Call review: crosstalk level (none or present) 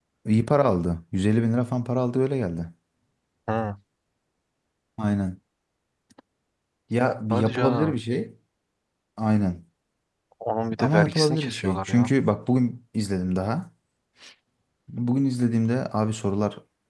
present